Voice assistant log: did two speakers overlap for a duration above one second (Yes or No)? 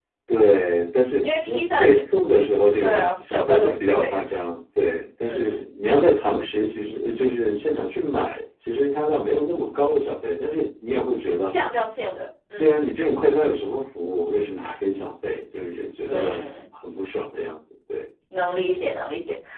Yes